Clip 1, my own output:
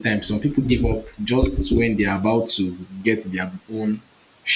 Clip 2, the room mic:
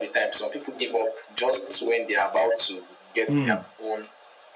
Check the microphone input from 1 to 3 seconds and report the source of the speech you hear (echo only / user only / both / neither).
echo only